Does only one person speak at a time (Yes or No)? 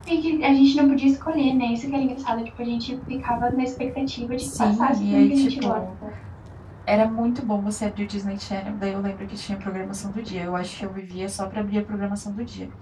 No